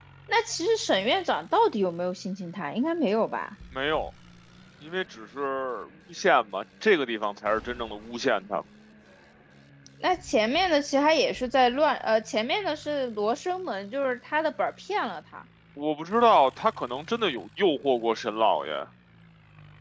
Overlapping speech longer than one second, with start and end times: none

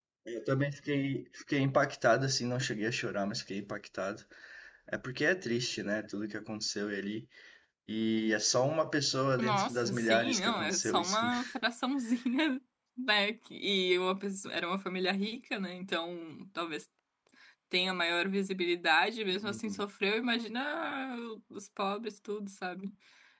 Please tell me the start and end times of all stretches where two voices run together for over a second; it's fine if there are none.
9.4-11.3

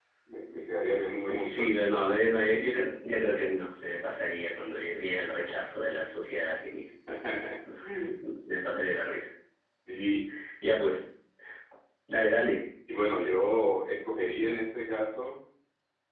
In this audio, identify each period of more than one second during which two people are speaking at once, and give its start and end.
none

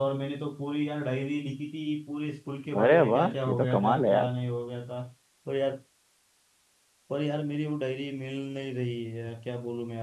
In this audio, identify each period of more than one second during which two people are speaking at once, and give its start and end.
2.8-4.3

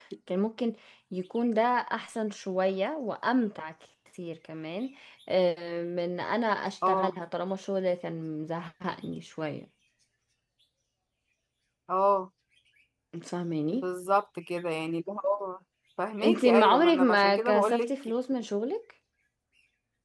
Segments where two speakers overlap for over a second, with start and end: 16.2-17.9

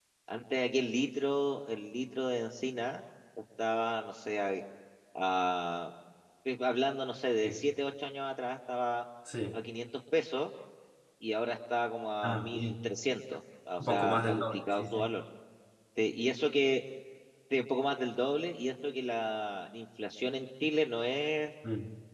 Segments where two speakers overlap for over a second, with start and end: 13.8-15.0

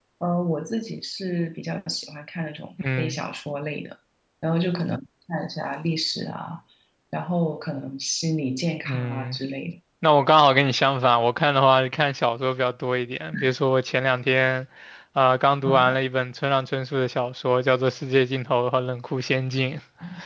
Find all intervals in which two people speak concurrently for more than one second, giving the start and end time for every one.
none

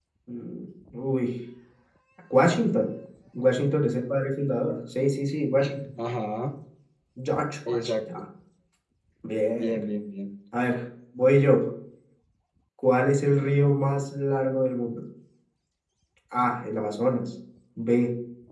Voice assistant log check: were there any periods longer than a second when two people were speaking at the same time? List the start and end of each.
none

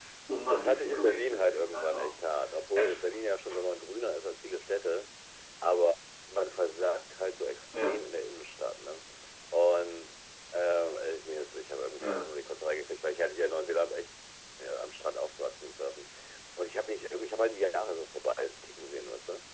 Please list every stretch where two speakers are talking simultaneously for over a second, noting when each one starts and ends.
0.5-2.1

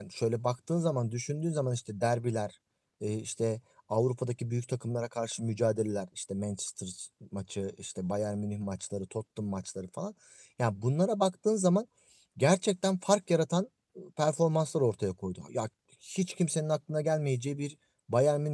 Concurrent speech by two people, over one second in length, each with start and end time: none

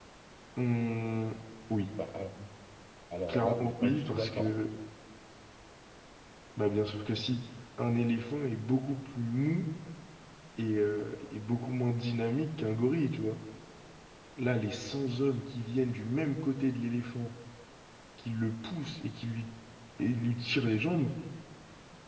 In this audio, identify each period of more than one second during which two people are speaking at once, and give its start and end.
3.3-4.5

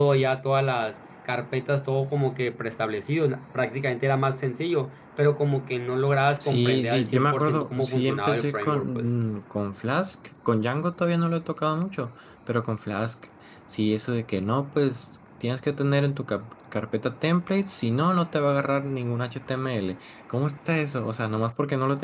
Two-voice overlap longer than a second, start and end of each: 6.4-9.1

